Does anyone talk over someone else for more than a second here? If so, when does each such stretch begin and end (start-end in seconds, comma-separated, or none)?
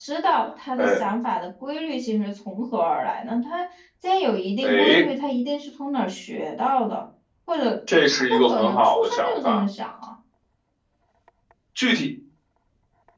8.1-9.6